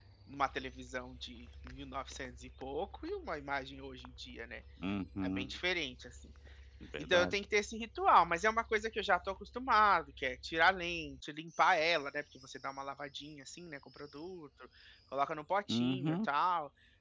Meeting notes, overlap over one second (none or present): none